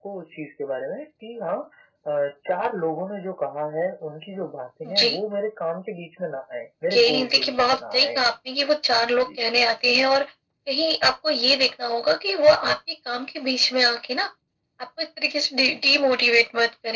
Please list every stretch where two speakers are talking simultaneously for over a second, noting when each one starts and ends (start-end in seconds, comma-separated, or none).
6.9-8.2